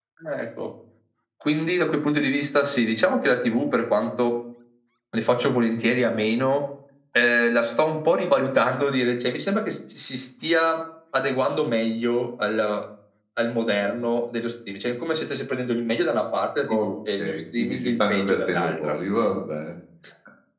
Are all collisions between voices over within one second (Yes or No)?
No